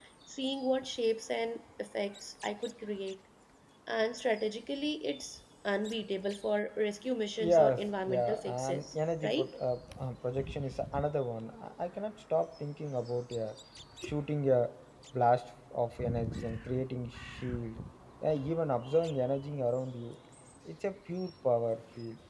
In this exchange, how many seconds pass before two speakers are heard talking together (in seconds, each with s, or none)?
7.4 s